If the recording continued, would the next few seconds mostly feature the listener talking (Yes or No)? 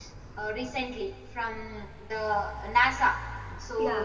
No